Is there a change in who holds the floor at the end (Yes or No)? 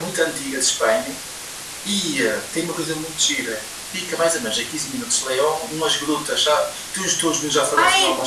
Yes